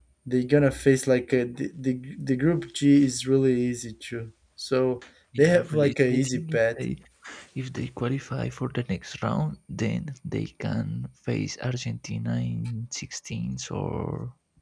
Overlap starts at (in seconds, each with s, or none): 5.3 s